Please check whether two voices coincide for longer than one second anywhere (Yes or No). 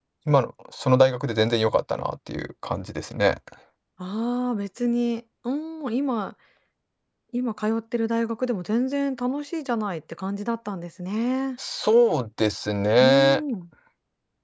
No